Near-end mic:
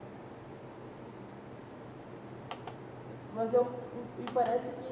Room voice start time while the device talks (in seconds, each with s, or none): 3.3 s